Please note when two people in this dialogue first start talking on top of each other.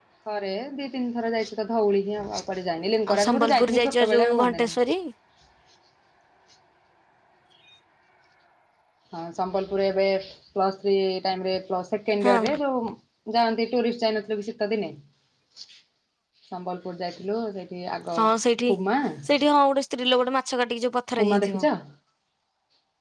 3.1 s

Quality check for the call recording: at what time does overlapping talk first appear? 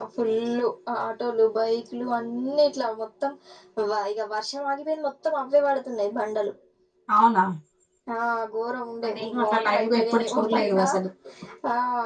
9.0 s

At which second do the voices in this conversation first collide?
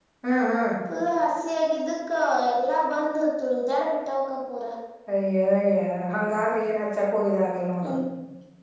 none

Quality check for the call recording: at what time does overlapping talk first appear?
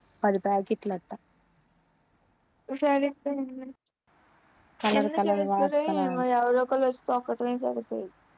5.0 s

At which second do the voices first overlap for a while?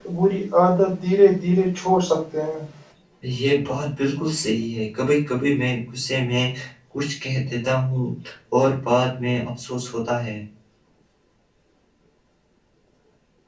none

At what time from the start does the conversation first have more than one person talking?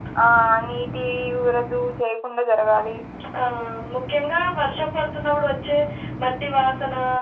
none

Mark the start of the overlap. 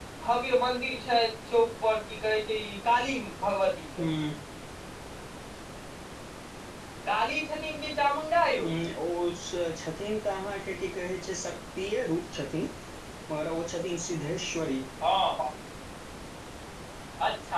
none

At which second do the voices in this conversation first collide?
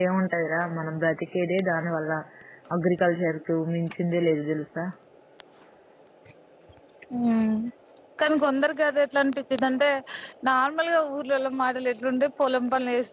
none

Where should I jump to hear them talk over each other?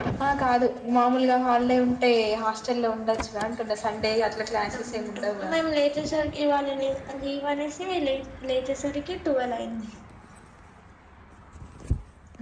4.2 s

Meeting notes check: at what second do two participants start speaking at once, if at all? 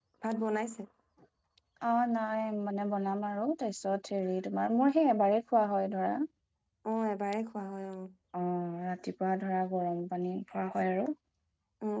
none

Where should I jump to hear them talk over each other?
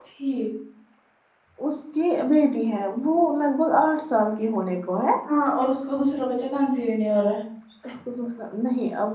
none

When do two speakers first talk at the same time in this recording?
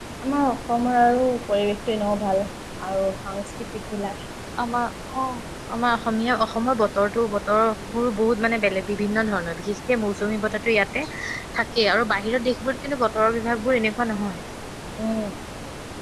none

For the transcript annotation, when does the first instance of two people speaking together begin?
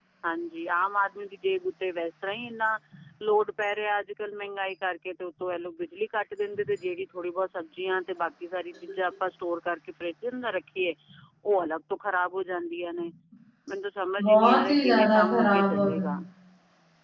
14.2 s

